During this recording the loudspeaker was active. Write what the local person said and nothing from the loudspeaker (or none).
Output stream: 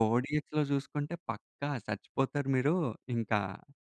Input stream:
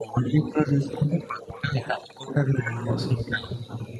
ఓహ్! సూపర్. హుహు.